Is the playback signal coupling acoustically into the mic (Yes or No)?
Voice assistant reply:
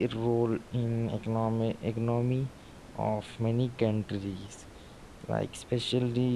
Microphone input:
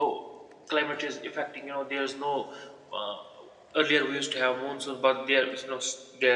No